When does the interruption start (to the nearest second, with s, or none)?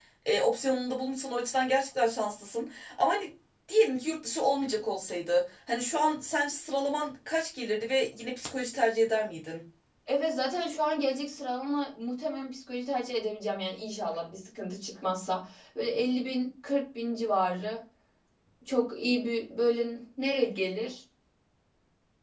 none